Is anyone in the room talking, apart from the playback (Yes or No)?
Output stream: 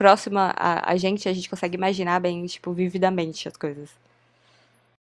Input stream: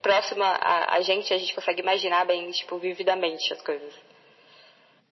No